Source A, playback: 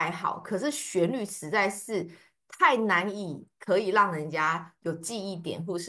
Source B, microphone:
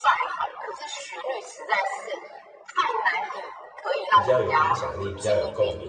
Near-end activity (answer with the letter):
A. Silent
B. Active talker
B